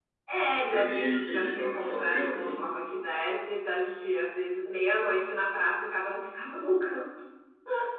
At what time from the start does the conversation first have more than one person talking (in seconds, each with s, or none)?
0.7 s